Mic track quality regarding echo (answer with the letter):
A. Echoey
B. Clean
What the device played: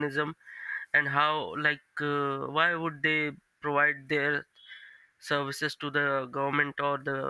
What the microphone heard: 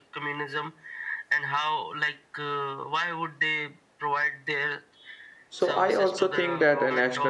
A